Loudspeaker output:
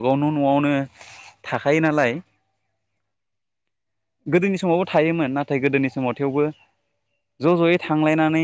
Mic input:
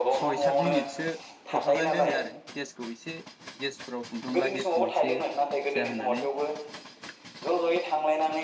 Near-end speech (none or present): present